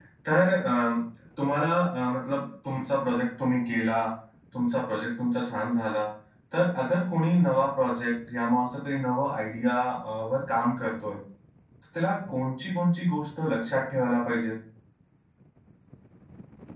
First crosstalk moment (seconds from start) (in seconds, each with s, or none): none